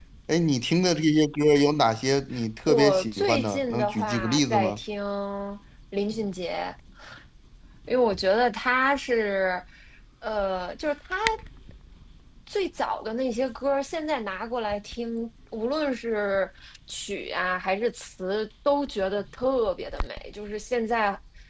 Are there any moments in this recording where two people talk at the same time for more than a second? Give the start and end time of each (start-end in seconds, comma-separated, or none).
2.7-4.8